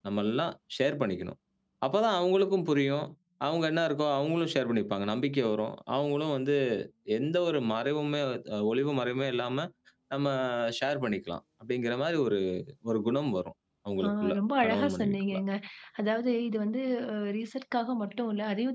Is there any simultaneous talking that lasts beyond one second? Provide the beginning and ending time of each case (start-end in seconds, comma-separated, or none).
14.0-15.4